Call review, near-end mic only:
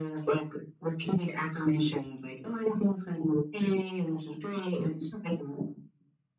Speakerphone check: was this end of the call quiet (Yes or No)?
Yes